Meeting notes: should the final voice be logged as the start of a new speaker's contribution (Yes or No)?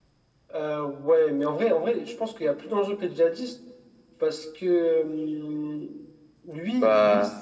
No